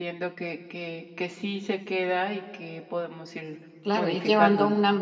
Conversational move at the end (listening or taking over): taking over